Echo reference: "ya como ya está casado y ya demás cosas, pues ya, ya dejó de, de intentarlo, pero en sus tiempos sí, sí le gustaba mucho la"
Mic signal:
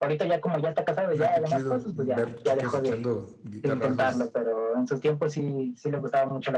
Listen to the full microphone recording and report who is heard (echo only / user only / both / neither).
both